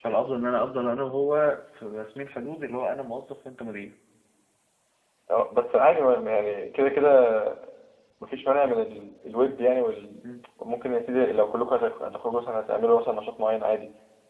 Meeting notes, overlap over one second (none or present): none